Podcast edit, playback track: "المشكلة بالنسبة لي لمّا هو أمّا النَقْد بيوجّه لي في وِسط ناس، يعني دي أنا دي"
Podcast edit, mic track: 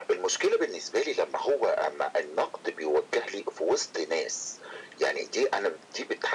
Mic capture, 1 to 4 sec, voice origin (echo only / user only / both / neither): echo only